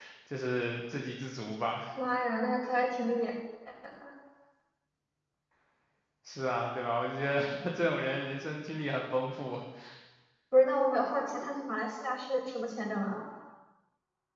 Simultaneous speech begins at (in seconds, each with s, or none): none